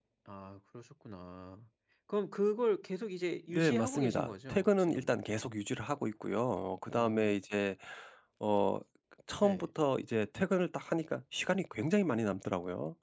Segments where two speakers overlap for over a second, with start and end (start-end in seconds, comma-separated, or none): 3.5-5.2